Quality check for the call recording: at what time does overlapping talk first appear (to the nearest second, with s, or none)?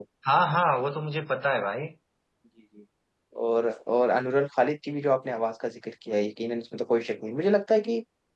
none